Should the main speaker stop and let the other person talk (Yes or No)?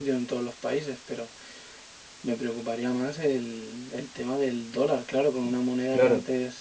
Yes